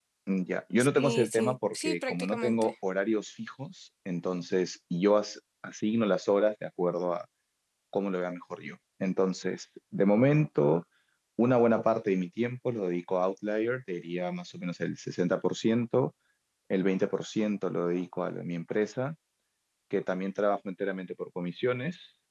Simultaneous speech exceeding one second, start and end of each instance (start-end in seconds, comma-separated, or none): 0.8-2.7